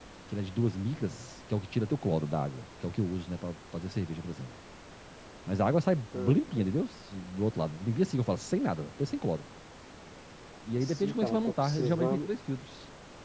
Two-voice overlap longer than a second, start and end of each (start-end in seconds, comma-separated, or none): 10.8-12.3